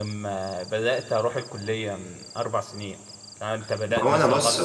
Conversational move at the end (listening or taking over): taking over